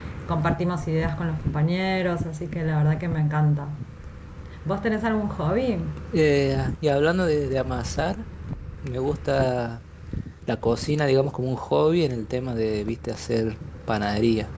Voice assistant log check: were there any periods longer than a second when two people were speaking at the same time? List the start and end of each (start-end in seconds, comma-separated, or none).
none